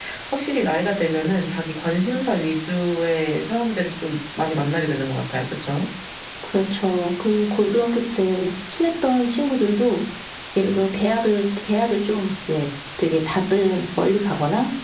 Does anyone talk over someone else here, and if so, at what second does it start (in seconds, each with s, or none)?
none